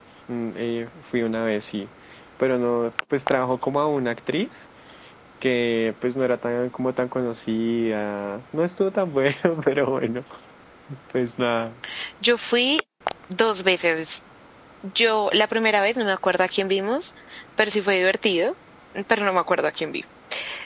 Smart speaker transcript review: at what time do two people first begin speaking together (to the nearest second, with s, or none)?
none